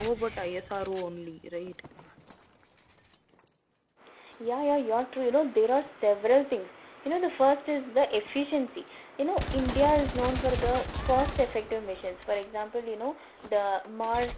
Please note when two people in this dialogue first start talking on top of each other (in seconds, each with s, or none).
none